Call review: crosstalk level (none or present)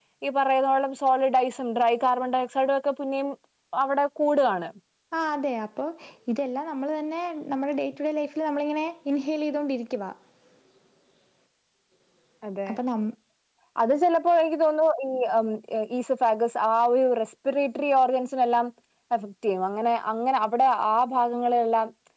none